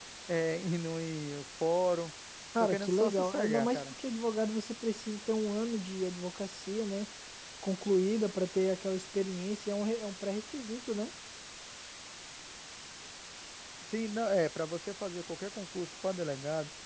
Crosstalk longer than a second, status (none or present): present